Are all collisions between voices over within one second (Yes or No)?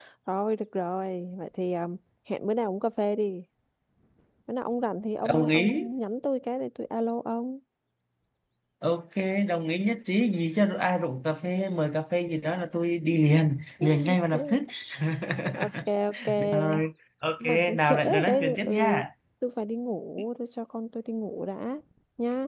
No